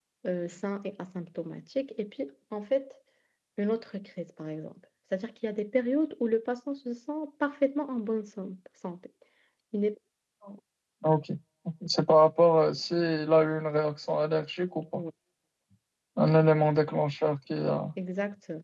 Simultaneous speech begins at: none

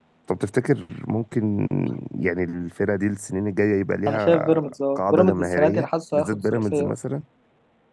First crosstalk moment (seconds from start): 4.1 s

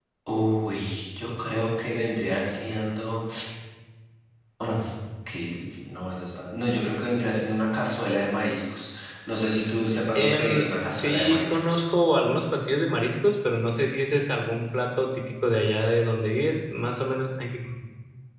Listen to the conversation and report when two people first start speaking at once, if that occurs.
10.2 s

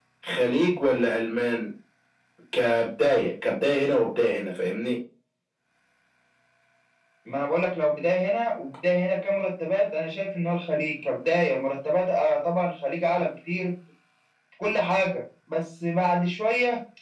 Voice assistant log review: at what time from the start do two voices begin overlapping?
none

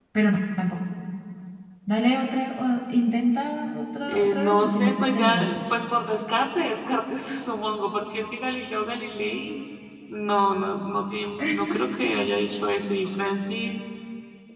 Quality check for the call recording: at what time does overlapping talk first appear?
4.1 s

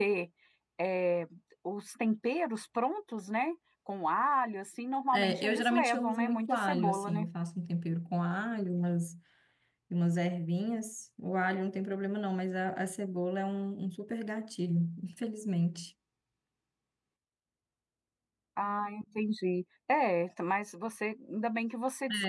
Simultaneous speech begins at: 5.1 s

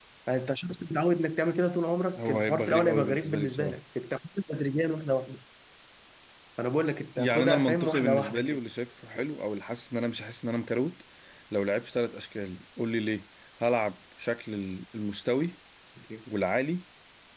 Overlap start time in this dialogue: 2.2 s

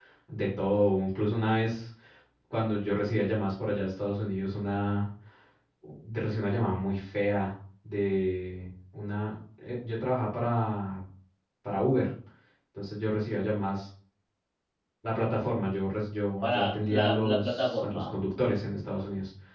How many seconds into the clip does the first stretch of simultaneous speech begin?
16.4 s

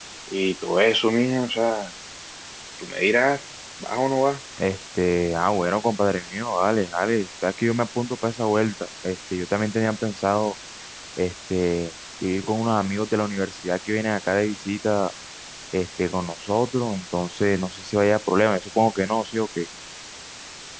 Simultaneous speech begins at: none

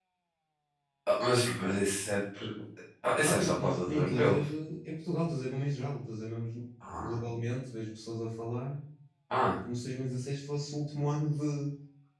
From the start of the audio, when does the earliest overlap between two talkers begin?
3.2 s

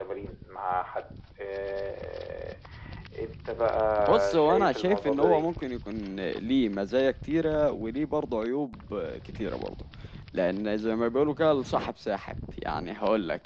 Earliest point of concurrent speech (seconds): 4.1 s

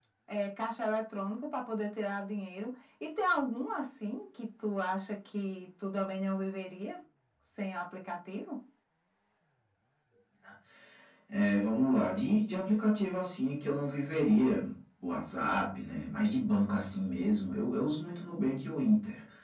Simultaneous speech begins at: none

